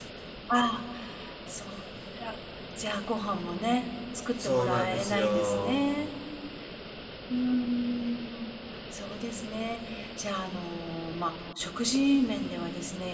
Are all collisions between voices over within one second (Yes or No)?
No